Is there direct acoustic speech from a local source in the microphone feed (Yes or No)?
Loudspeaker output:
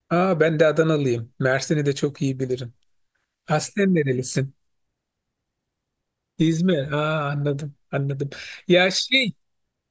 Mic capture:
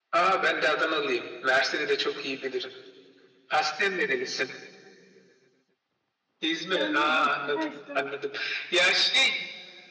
Yes